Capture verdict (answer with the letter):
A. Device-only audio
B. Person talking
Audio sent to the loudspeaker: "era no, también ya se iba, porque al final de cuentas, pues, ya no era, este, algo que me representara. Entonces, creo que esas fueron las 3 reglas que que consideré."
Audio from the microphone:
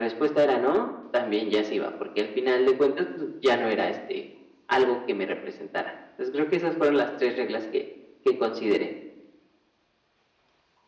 A